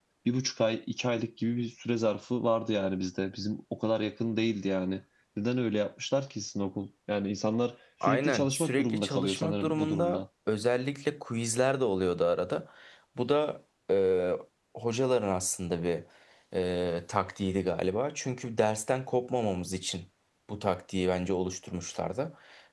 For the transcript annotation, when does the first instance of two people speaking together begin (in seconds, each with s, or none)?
8.0 s